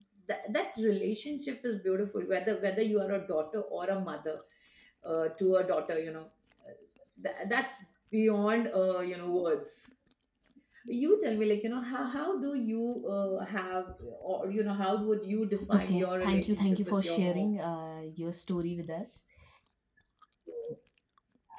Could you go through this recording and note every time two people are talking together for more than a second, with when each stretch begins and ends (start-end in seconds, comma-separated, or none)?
15.7-17.5